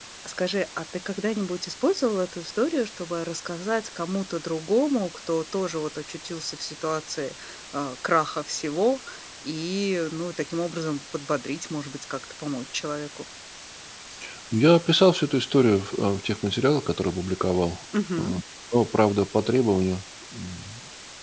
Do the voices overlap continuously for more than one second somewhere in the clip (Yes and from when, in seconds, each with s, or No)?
No